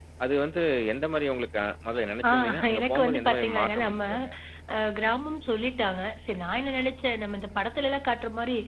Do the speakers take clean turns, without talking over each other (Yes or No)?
No